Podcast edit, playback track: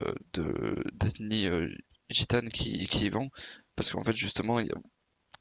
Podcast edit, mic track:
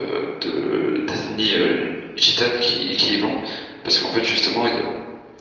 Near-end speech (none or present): none